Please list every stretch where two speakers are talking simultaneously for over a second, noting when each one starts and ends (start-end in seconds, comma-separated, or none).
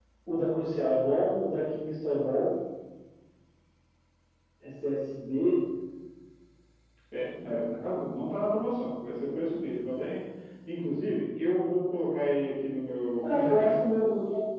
none